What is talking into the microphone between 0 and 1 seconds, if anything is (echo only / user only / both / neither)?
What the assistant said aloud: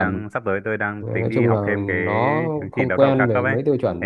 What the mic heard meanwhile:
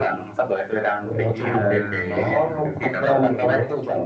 echo only